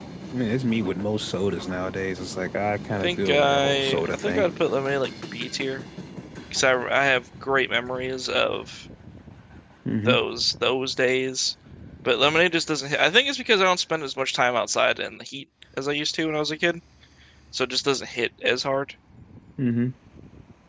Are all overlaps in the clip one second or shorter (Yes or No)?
No